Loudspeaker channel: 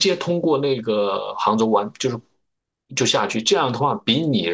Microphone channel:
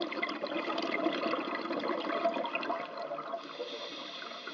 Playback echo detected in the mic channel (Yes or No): No